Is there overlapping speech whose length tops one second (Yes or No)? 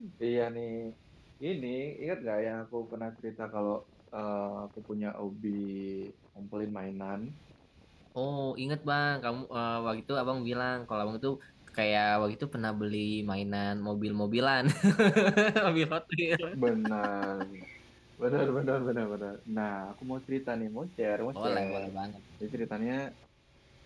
No